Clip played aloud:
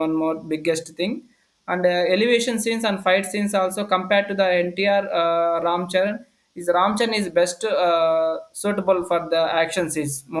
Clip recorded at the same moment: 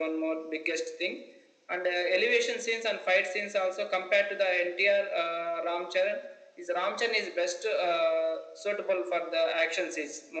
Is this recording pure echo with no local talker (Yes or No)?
Yes